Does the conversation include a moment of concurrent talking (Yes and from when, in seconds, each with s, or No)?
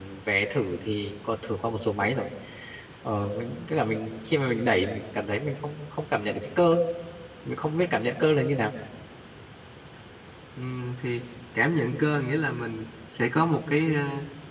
No